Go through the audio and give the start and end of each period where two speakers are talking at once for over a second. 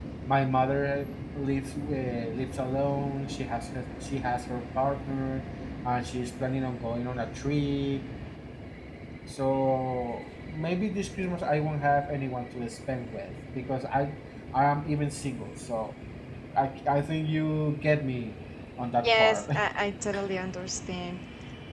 none

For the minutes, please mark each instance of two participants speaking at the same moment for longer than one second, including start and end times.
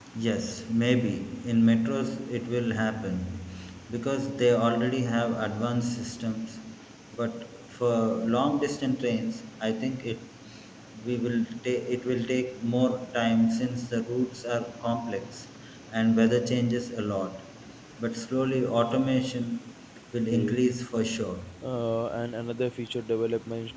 none

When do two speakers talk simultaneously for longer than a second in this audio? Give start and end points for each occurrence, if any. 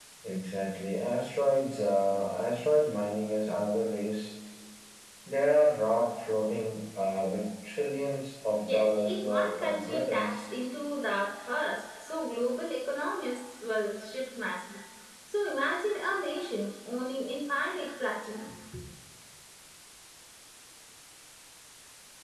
8.6-10.4

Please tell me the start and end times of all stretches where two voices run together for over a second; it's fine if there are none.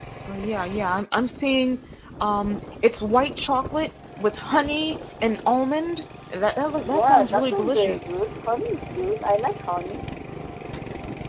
6.8-8.2

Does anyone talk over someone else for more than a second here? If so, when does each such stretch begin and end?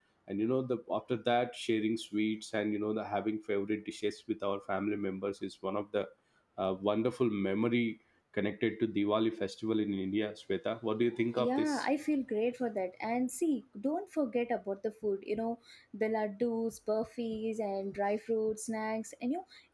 none

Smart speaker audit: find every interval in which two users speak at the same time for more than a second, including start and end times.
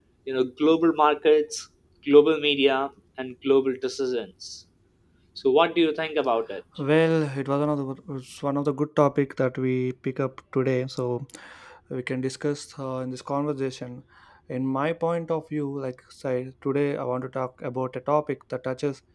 none

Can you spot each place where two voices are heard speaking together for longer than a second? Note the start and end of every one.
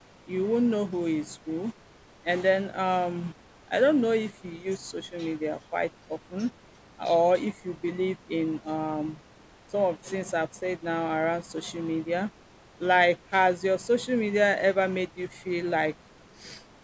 none

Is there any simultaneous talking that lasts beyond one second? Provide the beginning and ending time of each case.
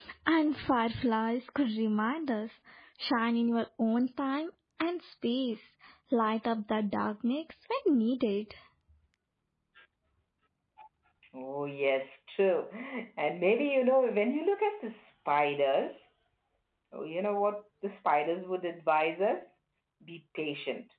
none

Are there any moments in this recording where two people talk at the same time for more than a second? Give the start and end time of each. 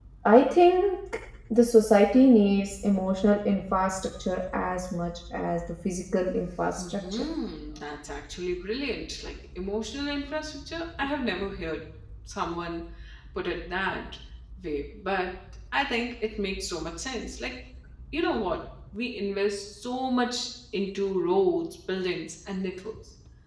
none

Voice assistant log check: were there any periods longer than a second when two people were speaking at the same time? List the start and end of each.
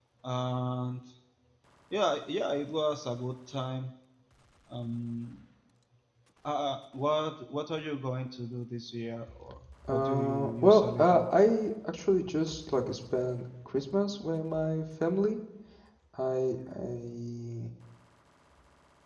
9.9-11.2

